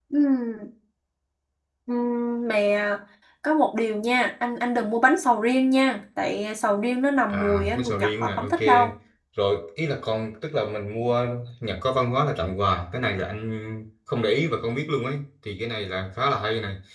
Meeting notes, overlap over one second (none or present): present